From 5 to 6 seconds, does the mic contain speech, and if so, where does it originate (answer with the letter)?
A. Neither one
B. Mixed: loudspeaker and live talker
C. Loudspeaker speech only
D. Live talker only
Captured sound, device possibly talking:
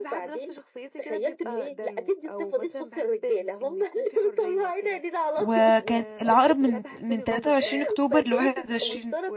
B